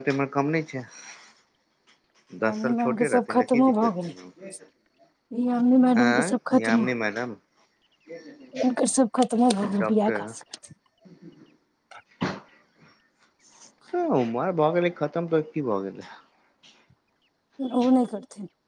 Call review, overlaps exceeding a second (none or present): present